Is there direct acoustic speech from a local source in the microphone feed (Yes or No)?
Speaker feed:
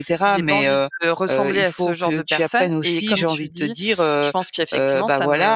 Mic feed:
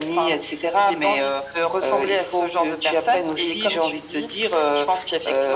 No